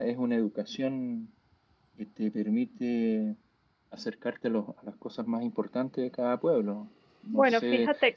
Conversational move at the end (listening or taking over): taking over